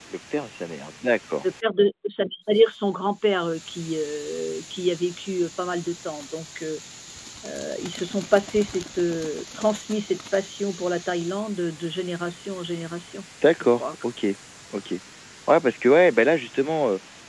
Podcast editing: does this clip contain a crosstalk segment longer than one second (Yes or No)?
No